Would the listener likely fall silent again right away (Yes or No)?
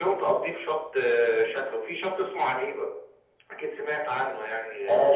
No